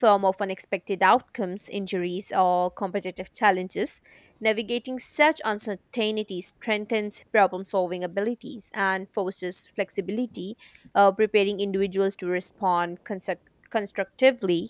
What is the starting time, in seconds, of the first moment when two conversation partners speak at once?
none

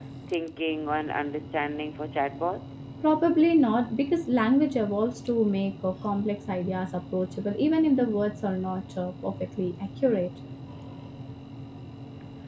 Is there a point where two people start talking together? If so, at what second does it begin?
none

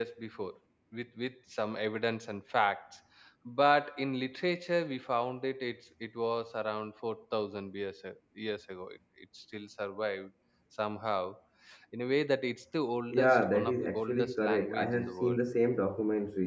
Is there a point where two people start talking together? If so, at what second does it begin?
13 s

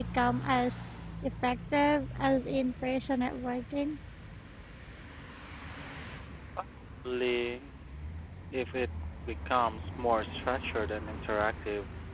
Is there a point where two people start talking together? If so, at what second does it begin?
none

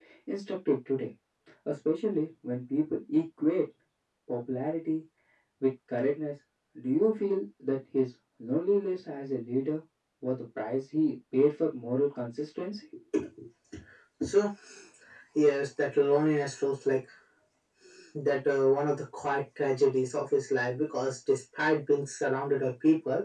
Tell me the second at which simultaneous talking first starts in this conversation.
none

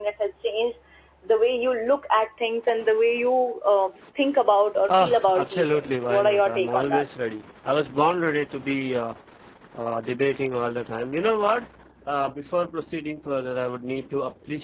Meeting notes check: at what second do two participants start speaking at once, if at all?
5 s

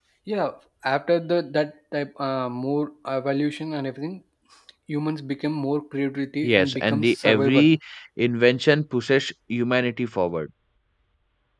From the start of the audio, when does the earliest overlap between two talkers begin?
6 s

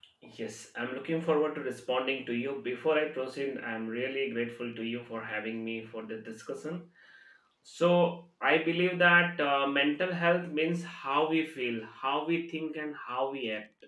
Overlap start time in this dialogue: none

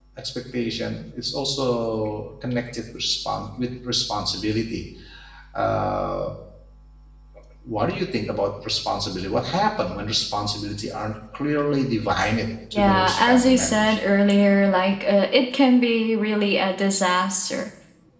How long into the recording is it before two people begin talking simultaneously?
13 s

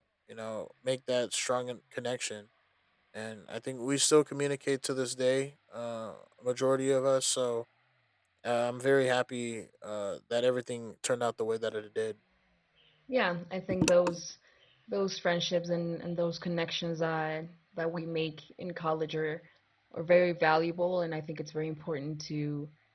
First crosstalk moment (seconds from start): none

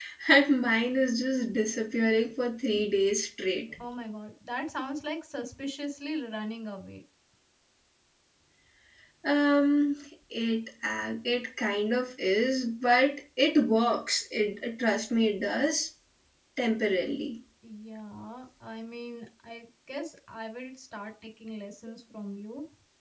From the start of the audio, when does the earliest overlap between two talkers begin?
none

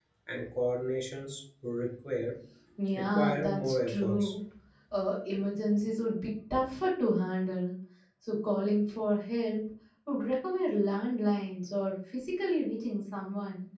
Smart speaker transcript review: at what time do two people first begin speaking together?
3 s

